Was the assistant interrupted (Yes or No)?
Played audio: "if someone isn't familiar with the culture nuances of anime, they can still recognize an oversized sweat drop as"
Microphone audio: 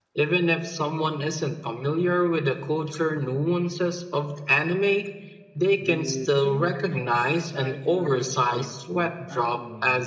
Yes